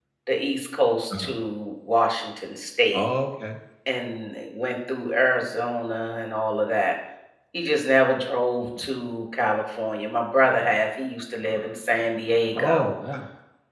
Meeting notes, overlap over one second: none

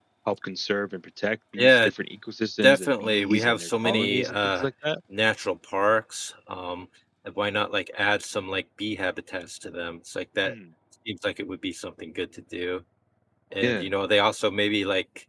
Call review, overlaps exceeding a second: present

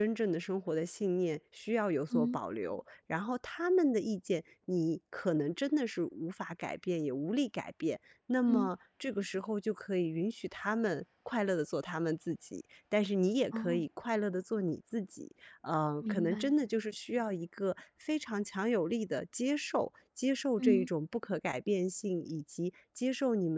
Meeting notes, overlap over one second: none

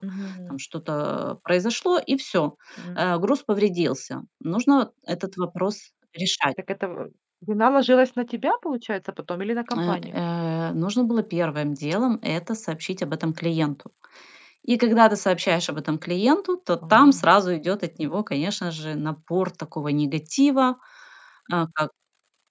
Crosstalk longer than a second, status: none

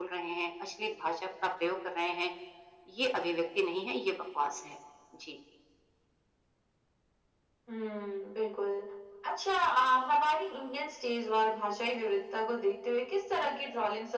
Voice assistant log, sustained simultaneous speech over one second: none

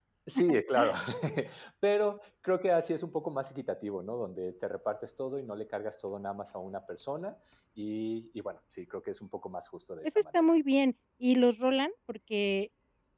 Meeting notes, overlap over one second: none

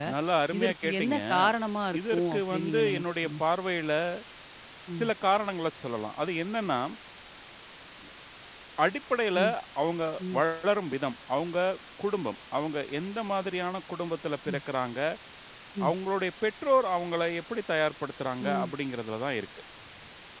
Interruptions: present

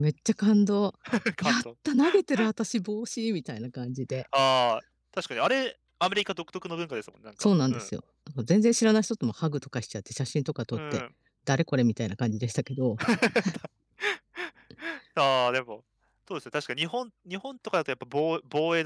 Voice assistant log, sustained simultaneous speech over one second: none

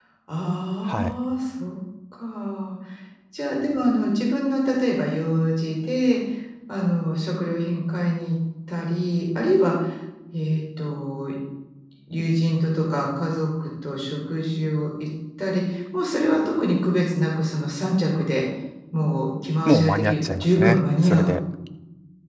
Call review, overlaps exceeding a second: present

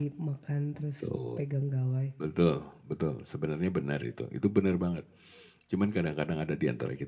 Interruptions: none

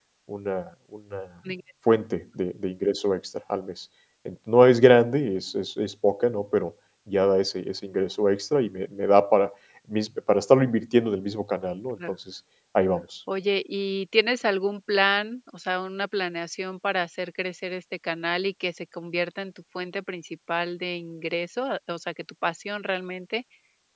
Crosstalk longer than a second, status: none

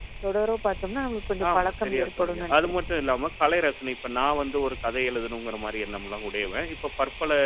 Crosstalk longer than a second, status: present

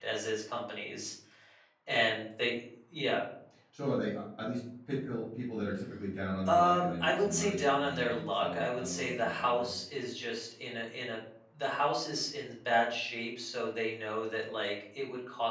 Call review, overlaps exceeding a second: present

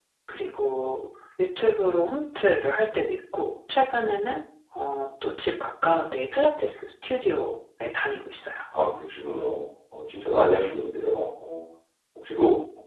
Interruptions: none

